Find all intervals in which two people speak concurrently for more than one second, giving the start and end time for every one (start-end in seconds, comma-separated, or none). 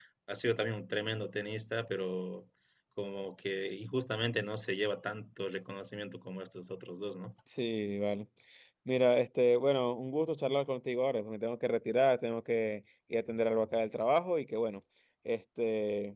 none